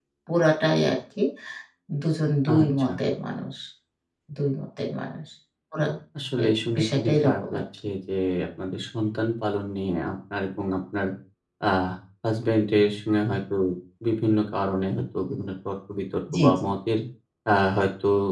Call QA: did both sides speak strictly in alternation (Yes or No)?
No